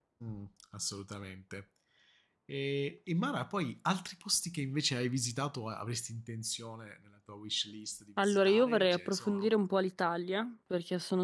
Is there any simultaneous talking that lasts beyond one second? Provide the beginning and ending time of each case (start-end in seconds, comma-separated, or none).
8.2-9.5